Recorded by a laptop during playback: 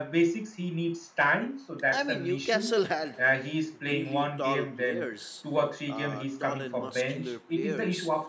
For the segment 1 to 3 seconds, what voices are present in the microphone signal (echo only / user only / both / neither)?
both